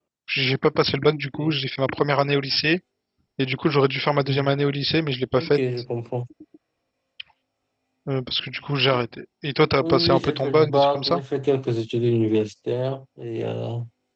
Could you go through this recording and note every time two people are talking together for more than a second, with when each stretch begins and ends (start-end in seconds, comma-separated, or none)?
9.8-11.2